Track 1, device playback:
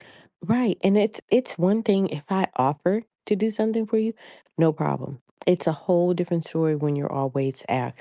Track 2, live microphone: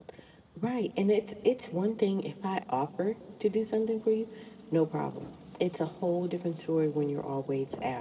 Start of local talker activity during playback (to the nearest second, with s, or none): none